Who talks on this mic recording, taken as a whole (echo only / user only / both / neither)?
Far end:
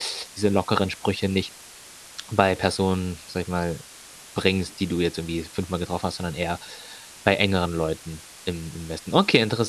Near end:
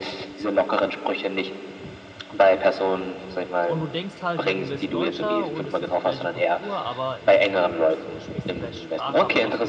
both